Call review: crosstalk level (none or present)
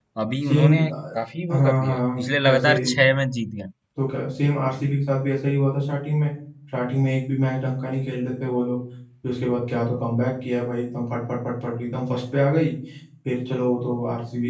present